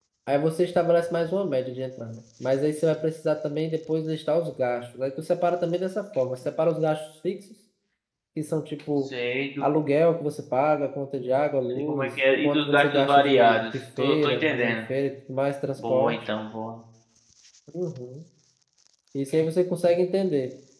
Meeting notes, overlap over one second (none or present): present